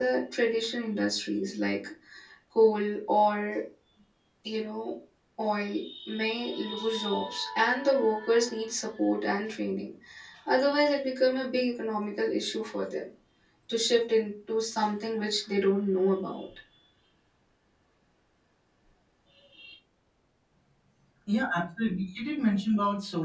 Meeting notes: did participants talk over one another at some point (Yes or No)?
No